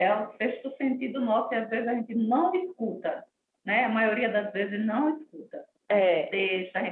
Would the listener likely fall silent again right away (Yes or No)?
Yes